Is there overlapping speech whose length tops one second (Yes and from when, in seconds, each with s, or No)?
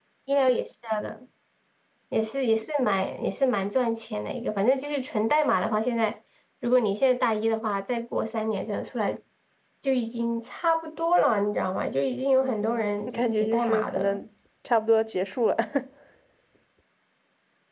Yes, from 12.4 s